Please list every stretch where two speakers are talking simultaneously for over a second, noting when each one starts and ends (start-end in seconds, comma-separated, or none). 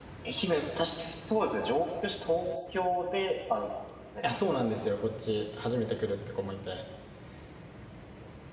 none